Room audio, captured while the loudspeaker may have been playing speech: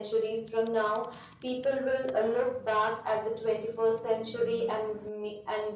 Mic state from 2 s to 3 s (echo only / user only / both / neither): echo only